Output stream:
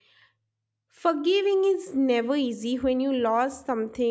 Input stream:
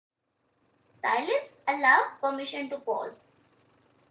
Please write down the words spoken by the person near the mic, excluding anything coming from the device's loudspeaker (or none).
silence allows permission to pause